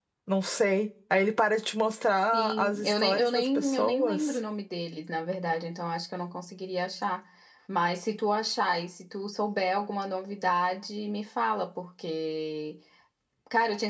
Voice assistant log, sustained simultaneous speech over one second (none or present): present